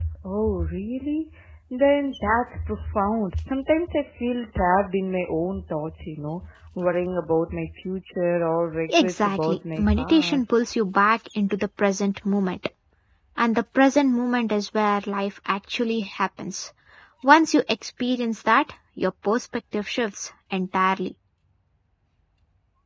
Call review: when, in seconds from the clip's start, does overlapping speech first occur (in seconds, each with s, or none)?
8.9 s